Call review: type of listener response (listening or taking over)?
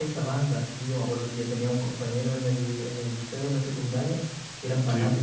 listening